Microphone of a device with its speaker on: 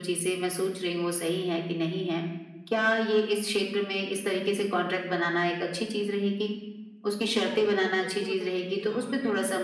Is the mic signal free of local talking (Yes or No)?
No